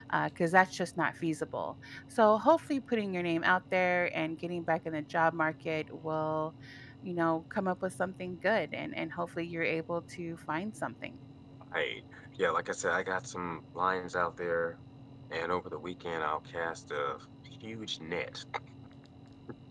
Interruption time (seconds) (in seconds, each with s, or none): none